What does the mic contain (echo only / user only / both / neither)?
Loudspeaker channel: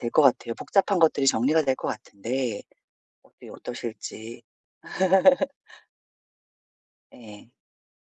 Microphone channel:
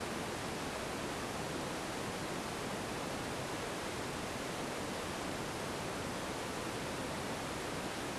neither